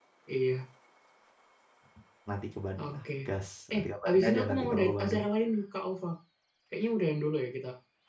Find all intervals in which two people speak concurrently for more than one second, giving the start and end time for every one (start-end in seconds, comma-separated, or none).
3.7-5.2